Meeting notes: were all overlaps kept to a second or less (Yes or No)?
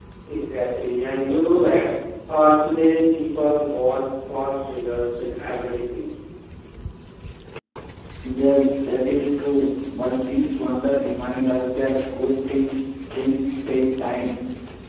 Yes